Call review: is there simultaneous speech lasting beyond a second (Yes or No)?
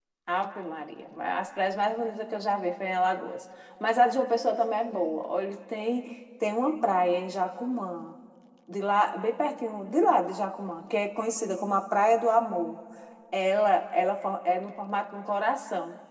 No